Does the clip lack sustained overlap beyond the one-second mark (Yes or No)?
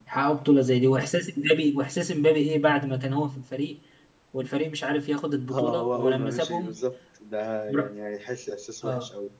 No